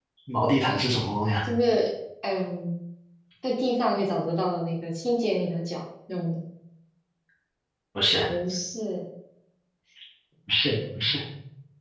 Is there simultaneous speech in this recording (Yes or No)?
No